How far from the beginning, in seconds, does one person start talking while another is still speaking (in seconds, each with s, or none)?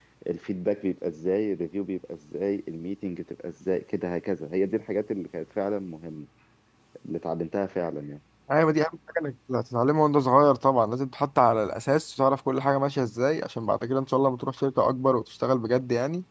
none